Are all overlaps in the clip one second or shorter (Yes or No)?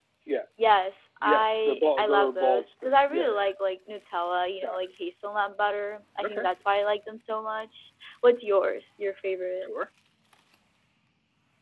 No